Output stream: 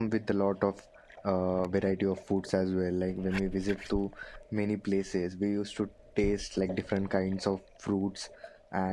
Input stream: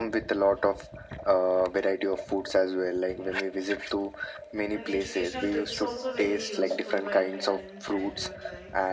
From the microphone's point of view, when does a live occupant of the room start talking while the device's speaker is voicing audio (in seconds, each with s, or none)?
4.7 s